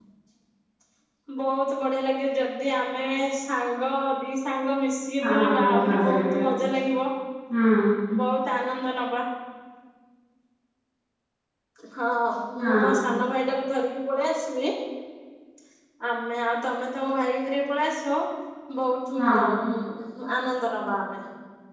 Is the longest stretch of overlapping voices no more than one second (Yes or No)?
No